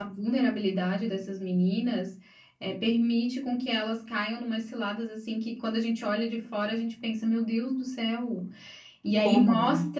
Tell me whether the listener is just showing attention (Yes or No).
Yes